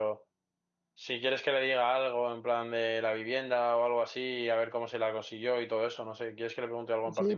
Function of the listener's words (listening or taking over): taking over